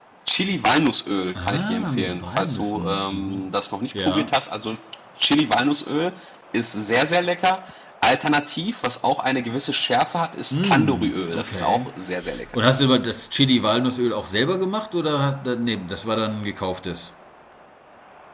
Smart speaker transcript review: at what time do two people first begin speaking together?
1.4 s

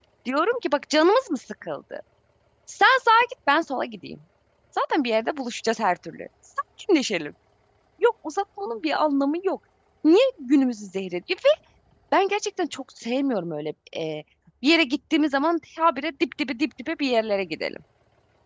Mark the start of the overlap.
none

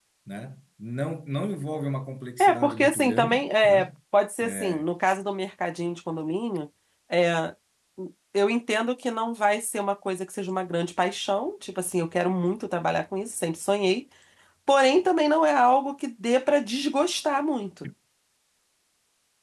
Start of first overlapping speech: 2.4 s

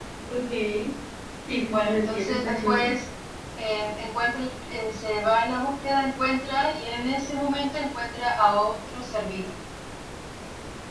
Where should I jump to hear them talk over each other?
1.7 s

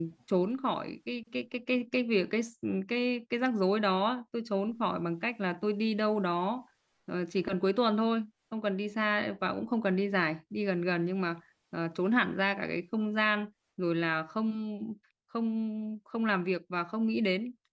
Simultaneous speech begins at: none

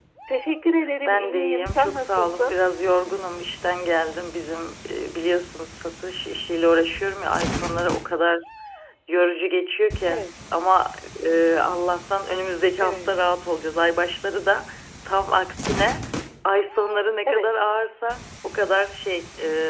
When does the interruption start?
1.1 s

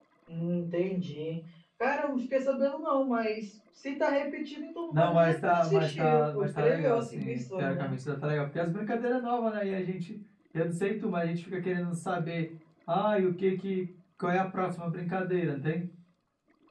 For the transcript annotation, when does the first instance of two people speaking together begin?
4.9 s

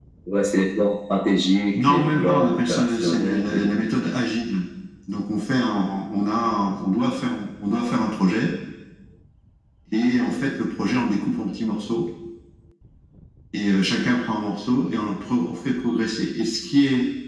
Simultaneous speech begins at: 1.7 s

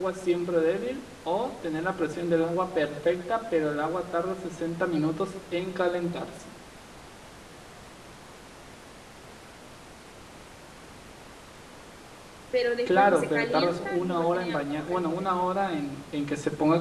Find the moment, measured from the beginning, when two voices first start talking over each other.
12.9 s

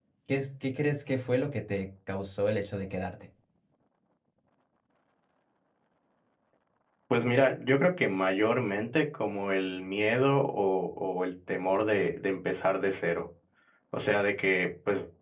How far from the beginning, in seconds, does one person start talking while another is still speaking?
none

